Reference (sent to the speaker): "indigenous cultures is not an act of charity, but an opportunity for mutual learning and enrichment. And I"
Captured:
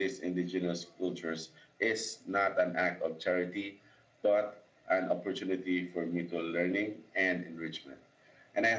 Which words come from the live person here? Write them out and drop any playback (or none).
none